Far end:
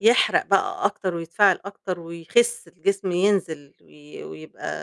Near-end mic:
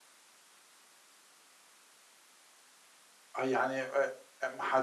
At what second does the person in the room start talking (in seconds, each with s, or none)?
3.4 s